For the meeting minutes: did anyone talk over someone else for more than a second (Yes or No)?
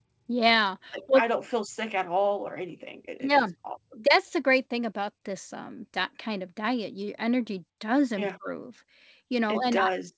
No